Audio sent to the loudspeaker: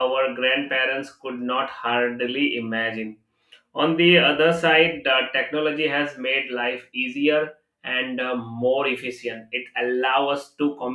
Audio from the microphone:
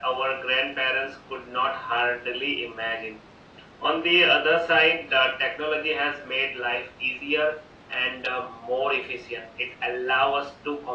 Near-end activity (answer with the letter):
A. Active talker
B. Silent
B